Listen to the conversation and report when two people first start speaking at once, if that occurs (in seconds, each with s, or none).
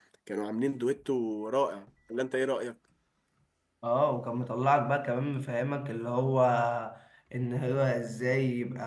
none